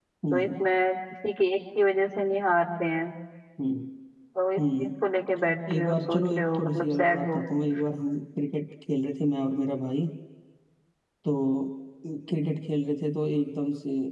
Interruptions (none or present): present